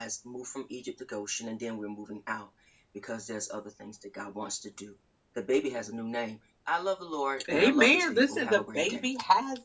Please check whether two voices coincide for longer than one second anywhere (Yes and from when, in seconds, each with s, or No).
Yes, from 7.4 s